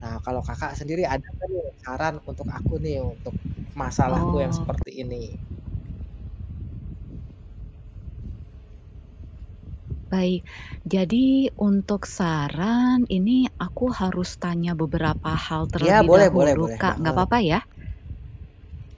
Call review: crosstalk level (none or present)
present